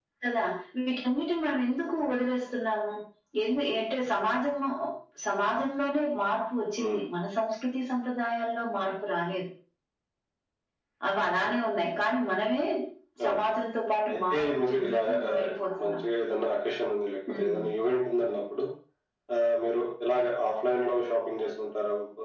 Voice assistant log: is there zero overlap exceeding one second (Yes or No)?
No